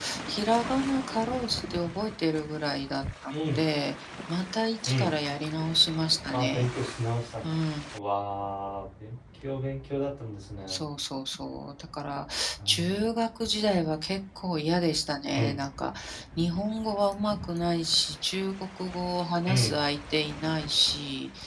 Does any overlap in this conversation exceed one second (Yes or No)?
No